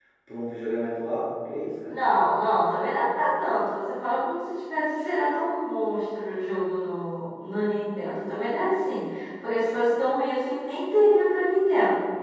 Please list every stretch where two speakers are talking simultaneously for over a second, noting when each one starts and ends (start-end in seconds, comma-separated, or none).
none